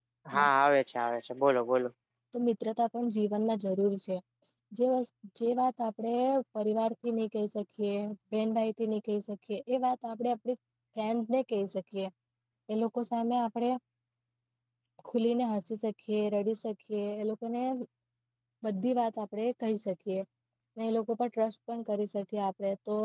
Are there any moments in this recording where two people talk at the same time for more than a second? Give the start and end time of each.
none

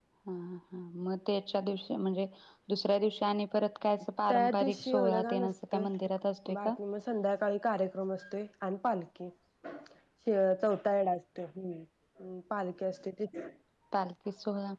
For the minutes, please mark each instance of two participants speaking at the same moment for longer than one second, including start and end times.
4.3-5.8

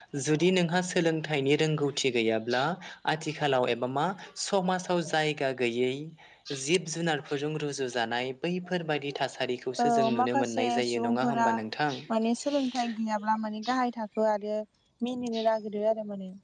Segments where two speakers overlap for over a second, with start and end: 9.8-11.5

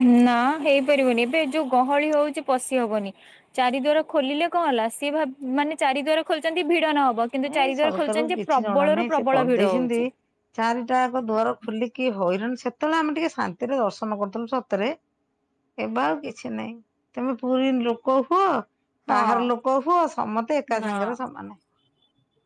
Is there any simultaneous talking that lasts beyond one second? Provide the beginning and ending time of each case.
7.5-10.0

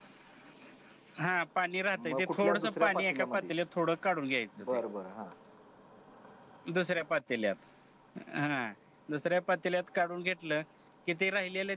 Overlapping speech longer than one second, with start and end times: 2.1-3.5

